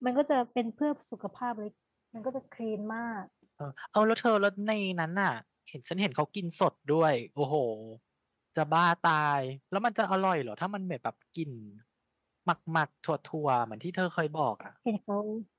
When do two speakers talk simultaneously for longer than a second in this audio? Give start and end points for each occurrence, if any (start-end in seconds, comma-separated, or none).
none